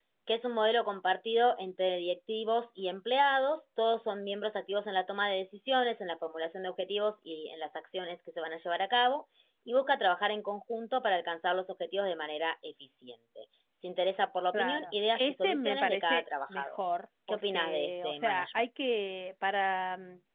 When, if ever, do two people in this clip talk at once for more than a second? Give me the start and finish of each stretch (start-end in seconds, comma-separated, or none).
14.5-16.8, 17.3-18.6